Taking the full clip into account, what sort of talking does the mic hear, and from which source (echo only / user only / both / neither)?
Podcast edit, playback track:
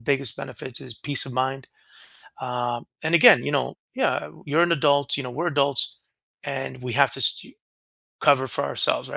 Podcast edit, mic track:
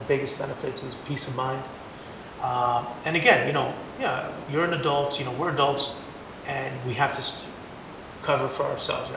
echo only